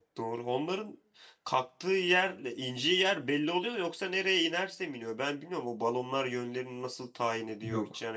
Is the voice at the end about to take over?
No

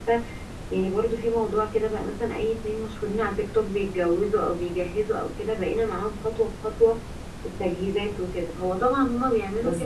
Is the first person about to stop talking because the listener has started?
No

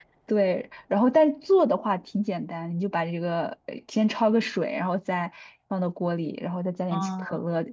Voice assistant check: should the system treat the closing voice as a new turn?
No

